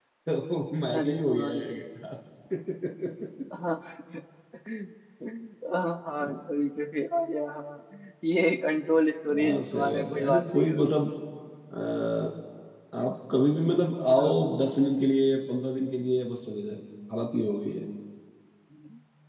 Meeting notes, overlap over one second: present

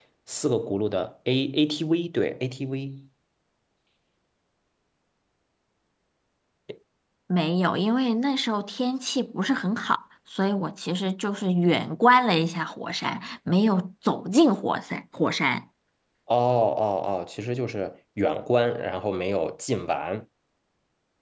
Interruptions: none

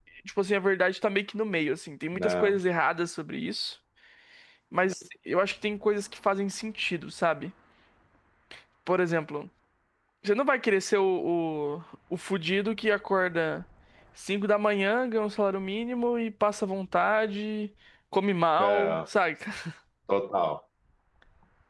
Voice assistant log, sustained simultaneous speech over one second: none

